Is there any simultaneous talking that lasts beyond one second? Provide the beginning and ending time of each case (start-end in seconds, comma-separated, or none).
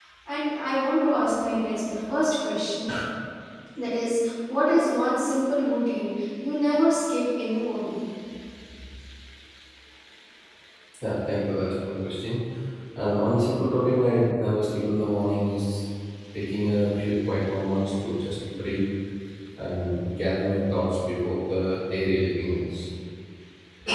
none